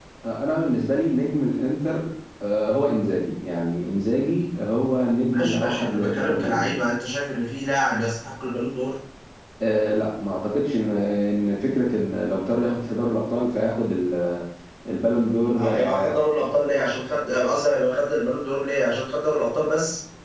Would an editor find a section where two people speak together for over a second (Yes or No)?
Yes